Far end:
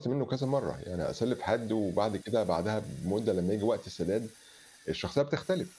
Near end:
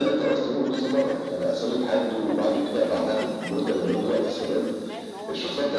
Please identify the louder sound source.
echo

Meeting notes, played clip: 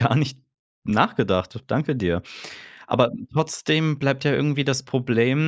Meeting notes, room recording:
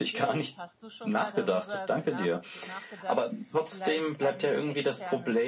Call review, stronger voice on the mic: echo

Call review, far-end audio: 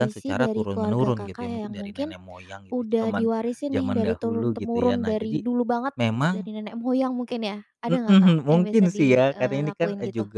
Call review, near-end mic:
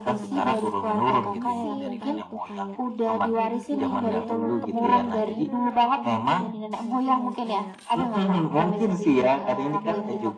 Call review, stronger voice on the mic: echo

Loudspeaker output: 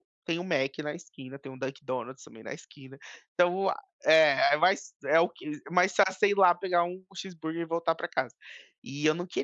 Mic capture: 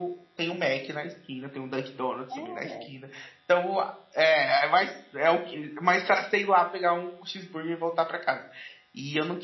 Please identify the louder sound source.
echo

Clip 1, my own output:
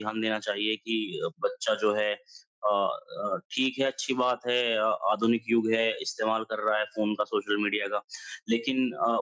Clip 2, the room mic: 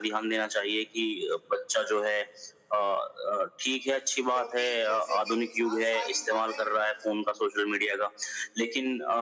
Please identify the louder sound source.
echo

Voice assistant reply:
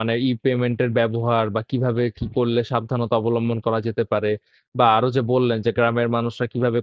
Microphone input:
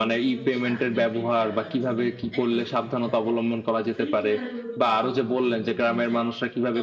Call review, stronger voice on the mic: echo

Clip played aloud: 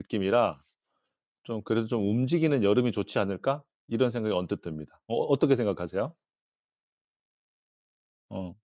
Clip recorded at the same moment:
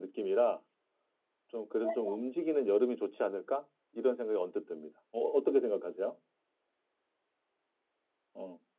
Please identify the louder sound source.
echo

